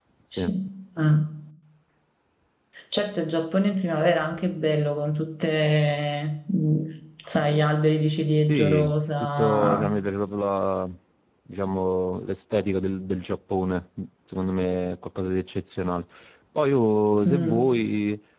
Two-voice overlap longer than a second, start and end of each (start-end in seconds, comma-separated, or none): 8.5-9.9